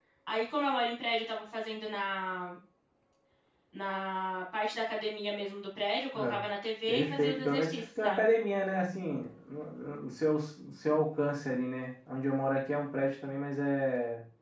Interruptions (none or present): present